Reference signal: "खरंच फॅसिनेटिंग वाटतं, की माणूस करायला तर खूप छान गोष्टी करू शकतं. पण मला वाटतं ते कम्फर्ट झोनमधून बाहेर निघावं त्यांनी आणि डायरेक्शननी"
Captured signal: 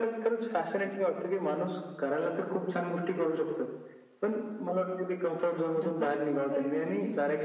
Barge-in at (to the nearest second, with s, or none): 6 s